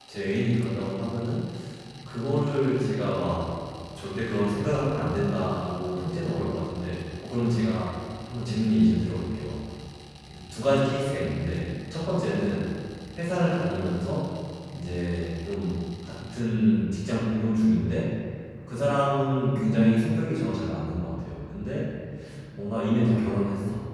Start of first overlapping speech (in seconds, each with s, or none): none